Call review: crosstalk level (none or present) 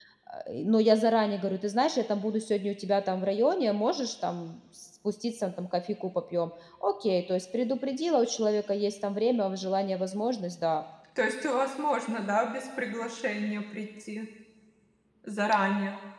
none